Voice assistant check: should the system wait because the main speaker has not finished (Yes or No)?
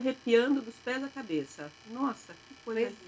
No